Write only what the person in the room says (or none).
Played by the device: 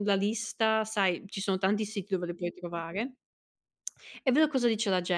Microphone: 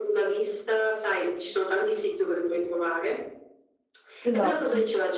Esatto.